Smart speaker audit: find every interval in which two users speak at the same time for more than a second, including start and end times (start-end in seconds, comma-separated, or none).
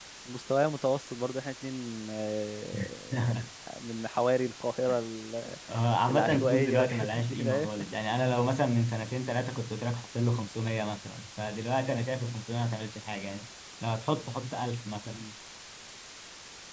6.1-7.9